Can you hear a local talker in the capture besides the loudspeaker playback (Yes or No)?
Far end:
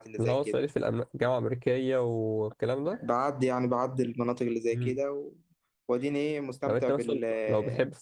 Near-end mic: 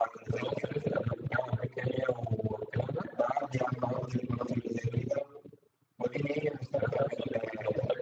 No